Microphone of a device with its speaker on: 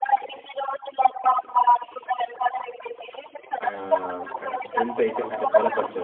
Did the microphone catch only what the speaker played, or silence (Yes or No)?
No